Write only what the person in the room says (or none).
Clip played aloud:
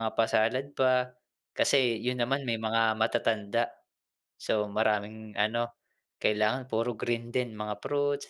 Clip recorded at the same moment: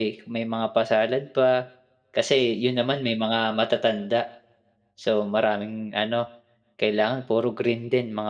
none